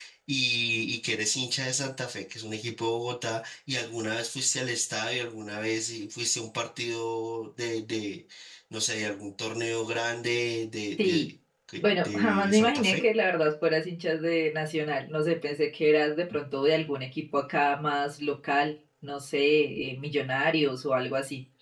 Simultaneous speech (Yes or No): Yes